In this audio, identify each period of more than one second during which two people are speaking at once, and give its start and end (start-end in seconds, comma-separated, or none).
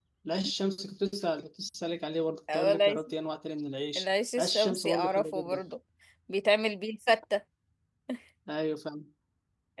4.0-5.6